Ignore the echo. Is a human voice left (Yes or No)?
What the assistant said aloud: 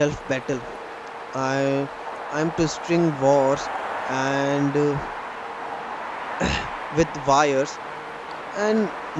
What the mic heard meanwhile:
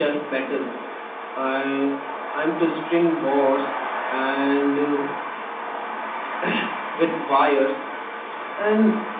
No